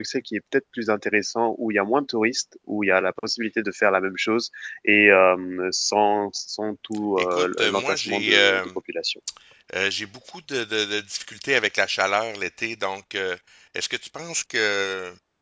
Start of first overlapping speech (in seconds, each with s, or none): 7.2 s